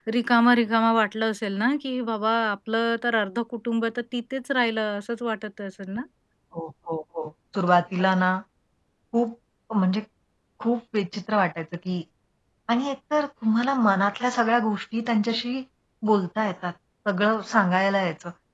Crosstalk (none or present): none